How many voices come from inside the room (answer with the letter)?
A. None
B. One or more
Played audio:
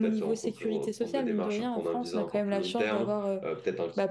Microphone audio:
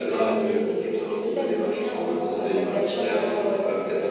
B